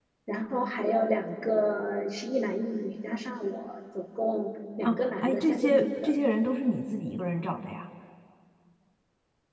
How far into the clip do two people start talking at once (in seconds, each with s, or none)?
4.8 s